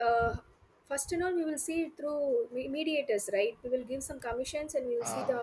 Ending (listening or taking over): listening